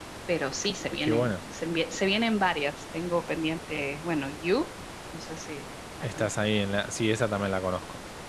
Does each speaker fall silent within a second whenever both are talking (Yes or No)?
Yes